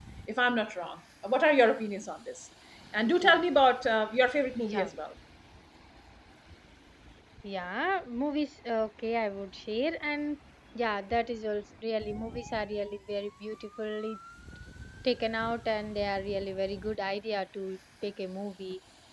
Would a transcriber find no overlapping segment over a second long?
Yes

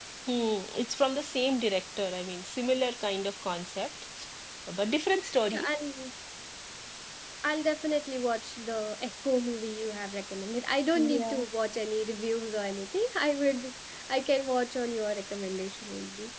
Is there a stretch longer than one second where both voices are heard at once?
No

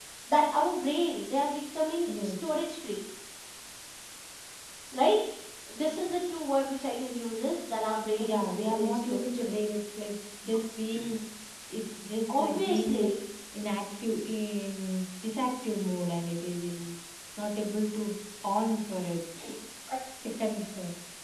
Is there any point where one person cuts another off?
Yes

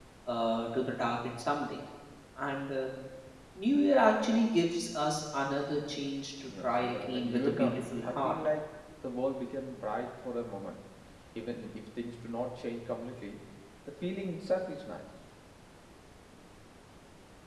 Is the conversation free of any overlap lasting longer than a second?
No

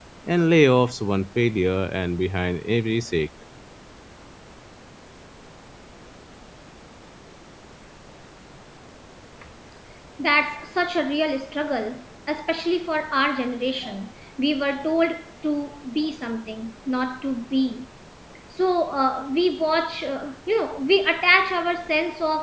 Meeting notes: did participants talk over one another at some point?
No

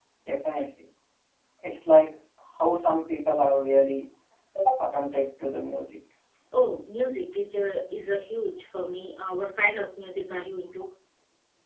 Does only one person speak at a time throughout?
Yes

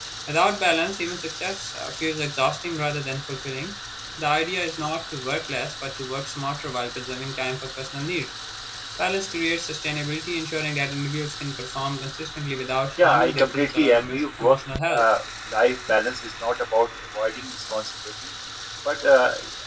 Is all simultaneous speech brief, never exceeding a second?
No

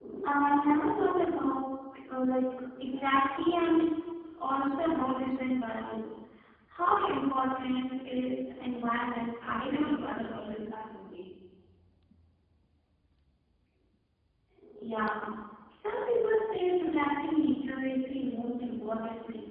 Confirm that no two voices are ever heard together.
No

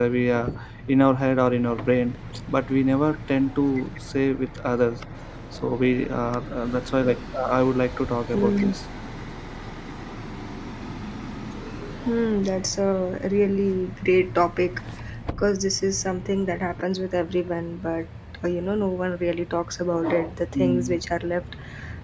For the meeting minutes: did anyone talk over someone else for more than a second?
No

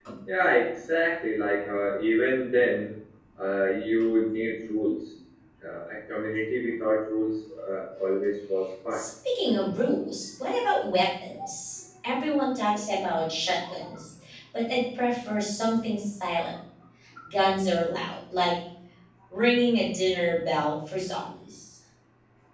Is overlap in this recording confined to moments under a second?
Yes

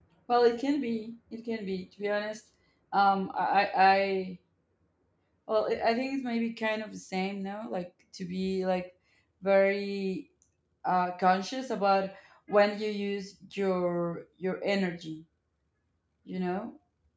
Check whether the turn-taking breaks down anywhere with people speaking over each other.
No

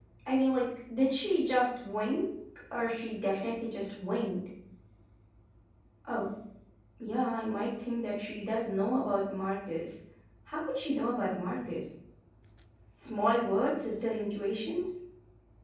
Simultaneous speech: No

